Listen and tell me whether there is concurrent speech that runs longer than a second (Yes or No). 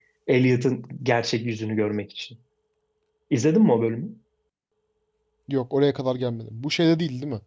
No